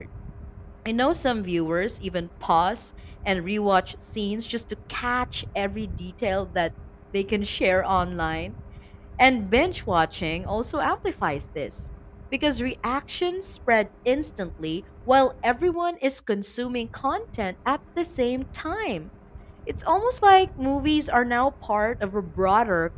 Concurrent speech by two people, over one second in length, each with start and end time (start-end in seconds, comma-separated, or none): none